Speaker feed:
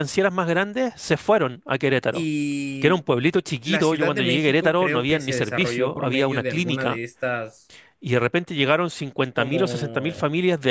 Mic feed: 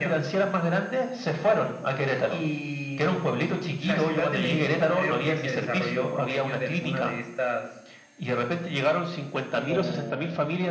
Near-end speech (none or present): none